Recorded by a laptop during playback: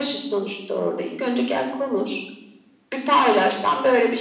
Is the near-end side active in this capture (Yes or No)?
No